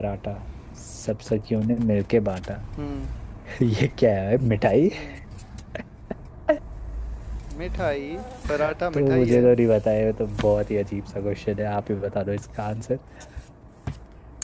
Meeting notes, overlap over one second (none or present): none